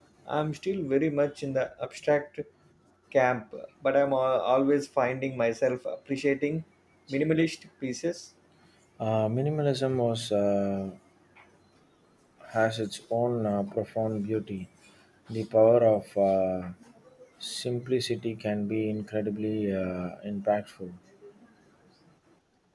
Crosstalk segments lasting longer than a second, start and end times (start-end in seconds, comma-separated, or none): none